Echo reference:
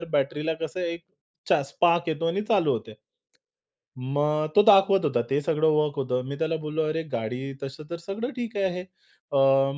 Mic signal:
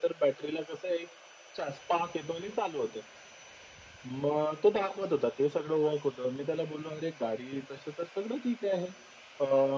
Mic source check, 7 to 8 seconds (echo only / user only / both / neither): echo only